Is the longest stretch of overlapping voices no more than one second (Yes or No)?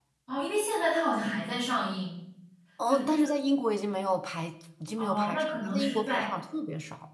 No